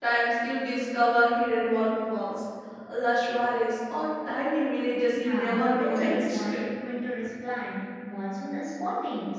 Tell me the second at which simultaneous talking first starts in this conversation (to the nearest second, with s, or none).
5 s